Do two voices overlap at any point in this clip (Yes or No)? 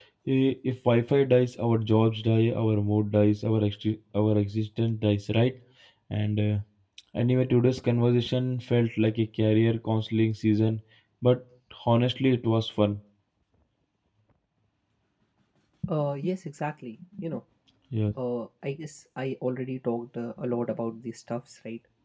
No